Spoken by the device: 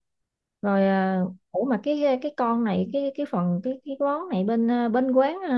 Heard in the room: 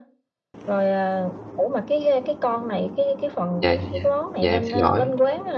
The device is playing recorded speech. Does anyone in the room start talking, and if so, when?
3.6 s

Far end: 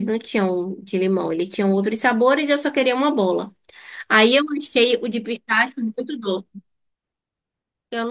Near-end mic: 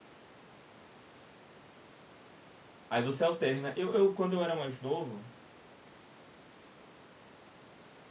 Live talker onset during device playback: 2.9 s

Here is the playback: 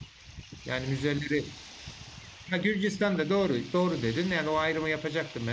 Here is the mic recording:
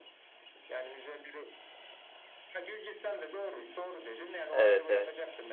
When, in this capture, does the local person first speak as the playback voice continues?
4.5 s

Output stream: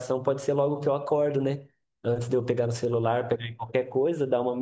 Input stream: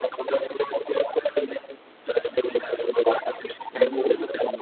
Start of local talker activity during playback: 3.7 s

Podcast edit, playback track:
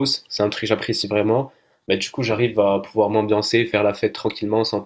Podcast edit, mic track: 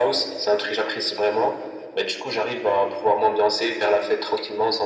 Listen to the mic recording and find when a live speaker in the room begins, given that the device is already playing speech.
none

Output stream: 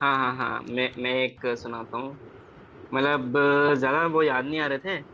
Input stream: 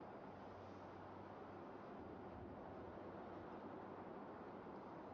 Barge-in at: none

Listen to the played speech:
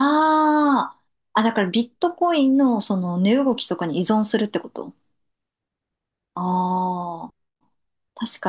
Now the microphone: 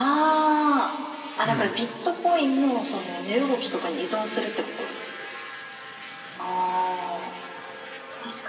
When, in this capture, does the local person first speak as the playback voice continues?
1.4 s

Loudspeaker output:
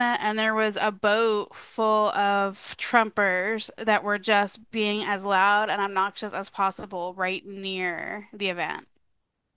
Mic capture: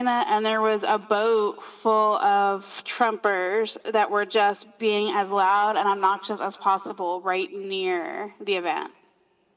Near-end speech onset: none

